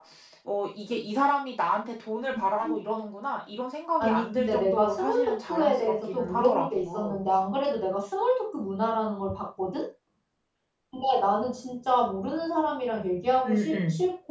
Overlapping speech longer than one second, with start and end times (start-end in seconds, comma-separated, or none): 4.0-7.2